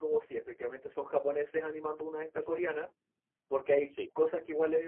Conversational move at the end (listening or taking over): listening